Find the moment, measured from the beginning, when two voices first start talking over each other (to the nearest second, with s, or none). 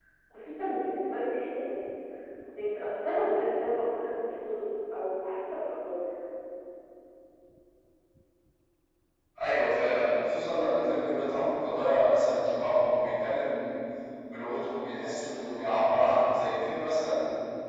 none